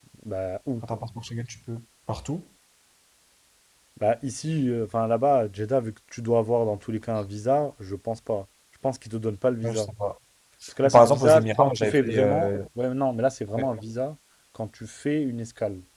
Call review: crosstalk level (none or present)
present